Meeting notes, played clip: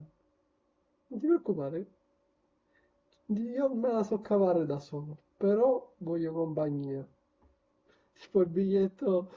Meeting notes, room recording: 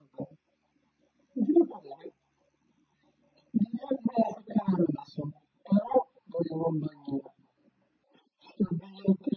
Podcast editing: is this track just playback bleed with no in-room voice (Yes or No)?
Yes